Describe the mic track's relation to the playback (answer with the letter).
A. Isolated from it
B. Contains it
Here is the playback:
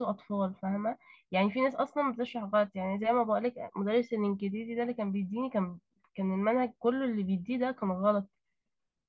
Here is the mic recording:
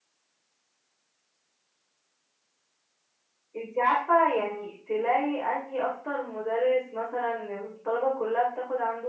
A